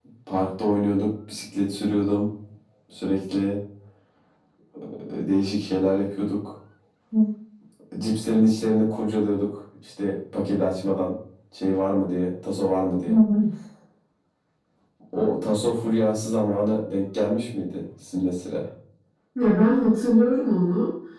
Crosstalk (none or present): none